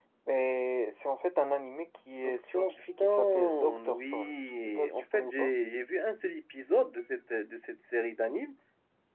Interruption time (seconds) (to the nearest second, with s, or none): 2 s